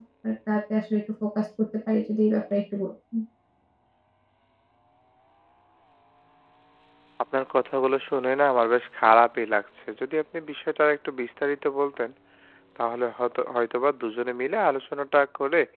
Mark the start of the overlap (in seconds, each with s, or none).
none